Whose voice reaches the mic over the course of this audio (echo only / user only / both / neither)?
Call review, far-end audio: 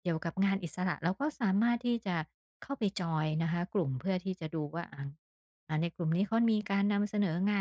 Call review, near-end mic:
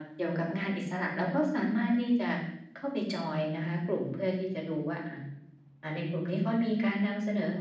echo only